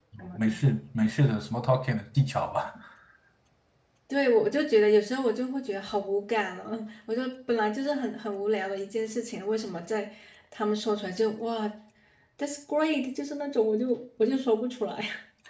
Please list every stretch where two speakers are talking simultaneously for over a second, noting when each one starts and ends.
none

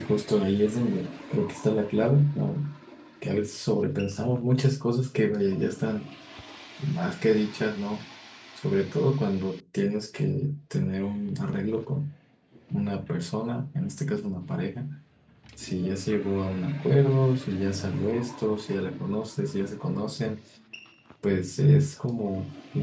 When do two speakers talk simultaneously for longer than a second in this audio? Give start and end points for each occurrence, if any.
none

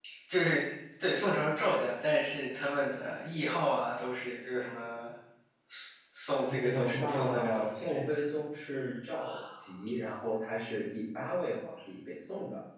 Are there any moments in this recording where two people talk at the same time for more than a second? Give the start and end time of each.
6.5-8.0

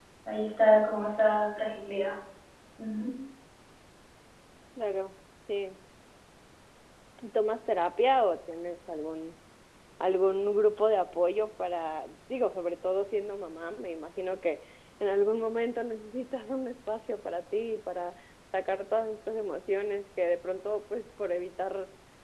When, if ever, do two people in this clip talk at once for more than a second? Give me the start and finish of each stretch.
none

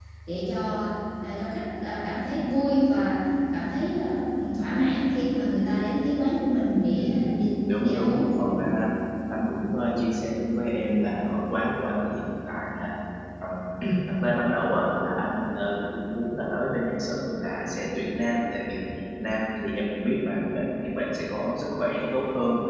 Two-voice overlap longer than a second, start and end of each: 7.0-8.3

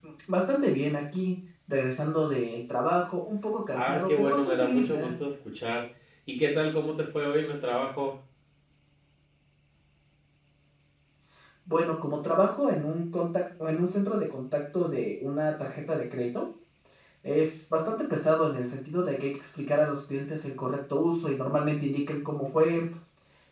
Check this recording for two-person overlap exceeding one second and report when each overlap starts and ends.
3.7-5.1

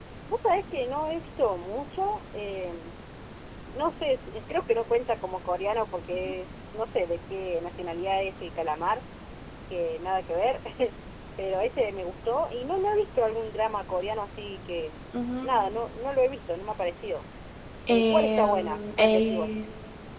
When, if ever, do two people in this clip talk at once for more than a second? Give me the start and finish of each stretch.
17.9-19.5

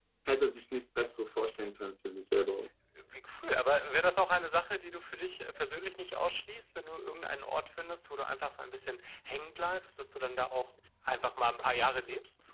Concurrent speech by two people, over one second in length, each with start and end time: none

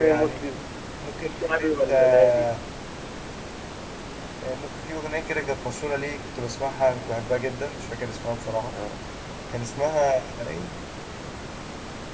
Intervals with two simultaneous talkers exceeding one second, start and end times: 1.2-2.5

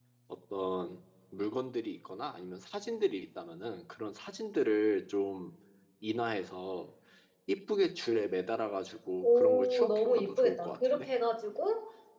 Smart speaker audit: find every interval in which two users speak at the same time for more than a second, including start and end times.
9.2-11.1

